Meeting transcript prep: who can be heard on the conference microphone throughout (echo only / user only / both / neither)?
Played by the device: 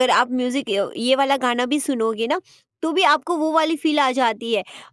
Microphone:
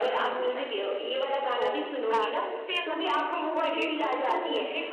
both